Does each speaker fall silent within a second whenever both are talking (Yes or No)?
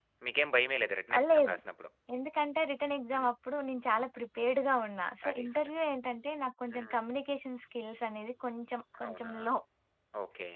Yes